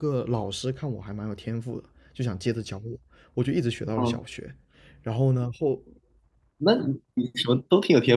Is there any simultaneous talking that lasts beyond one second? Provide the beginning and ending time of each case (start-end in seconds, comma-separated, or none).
none